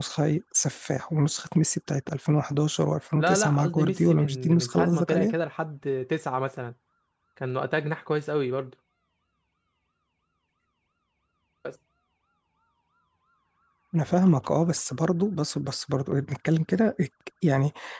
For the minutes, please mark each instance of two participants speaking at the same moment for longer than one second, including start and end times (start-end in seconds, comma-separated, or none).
3.2-5.3